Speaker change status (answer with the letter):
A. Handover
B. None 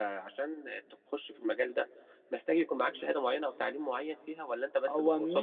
A